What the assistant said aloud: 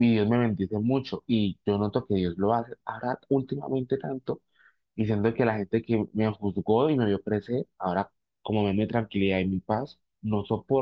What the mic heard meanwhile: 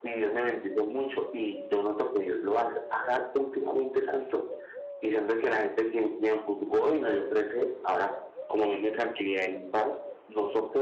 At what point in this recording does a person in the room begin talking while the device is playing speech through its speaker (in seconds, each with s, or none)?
none